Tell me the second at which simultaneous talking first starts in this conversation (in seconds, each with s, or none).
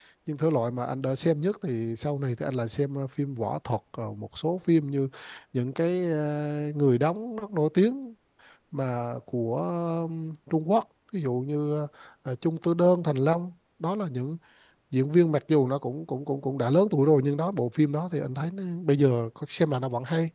none